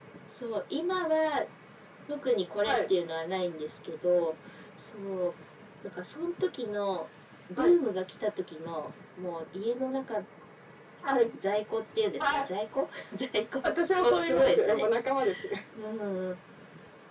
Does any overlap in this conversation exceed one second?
Yes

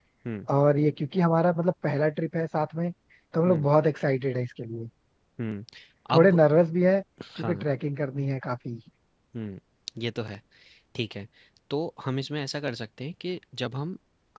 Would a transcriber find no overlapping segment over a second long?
Yes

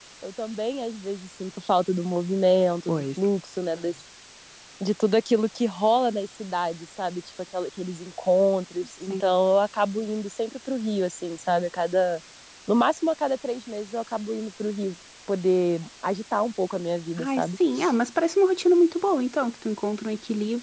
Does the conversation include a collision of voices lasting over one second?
No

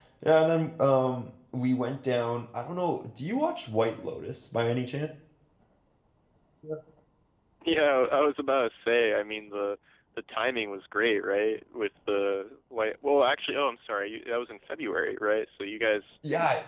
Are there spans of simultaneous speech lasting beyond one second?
No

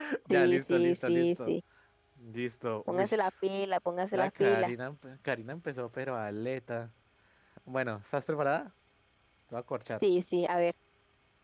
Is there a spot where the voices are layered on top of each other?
Yes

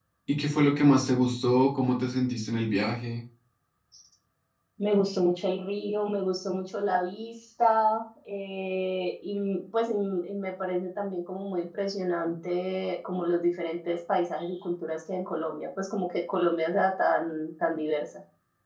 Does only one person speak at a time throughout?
Yes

